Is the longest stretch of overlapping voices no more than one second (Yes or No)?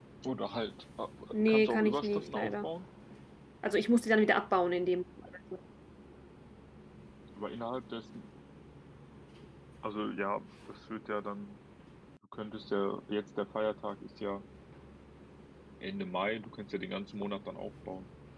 No